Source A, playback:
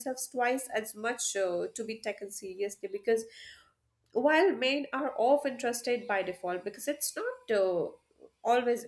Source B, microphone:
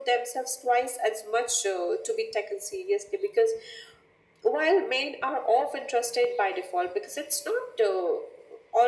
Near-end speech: none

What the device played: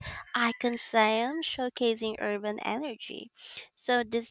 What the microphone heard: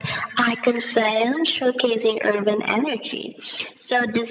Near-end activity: none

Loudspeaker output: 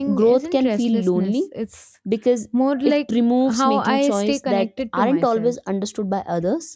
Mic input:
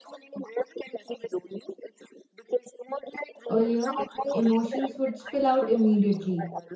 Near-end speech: present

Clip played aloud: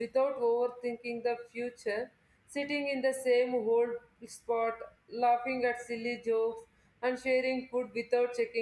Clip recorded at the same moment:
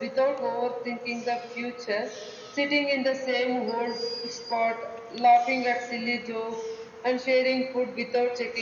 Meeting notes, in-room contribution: none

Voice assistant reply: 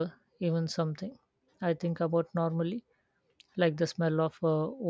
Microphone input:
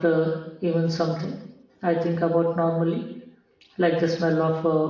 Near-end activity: none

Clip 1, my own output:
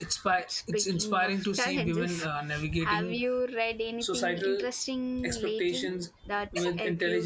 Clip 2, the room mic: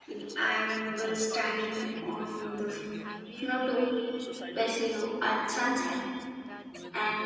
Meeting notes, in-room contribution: present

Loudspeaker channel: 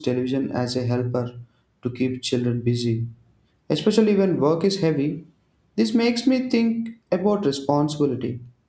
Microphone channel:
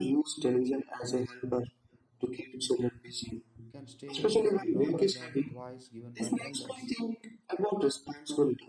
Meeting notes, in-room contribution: present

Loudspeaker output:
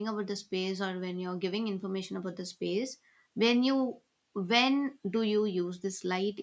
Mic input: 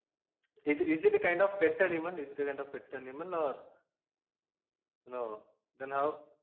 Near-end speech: present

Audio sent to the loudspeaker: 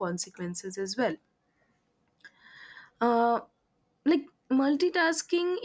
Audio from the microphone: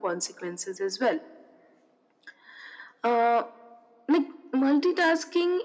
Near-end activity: none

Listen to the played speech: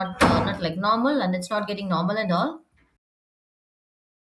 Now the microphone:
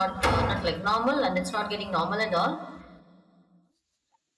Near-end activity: none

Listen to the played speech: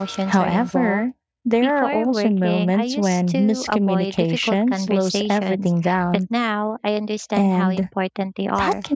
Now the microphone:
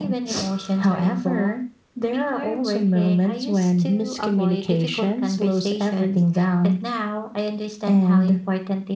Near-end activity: none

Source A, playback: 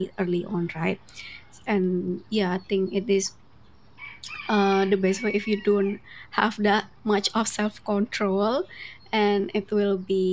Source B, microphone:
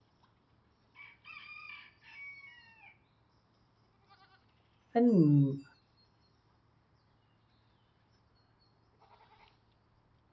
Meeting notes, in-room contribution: present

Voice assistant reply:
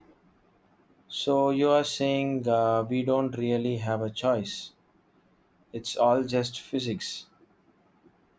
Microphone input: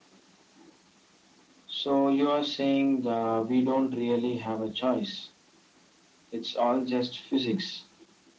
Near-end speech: none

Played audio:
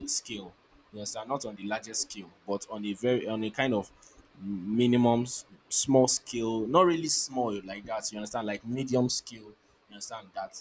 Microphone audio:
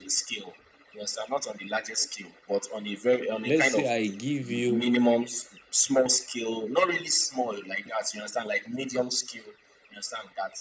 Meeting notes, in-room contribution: present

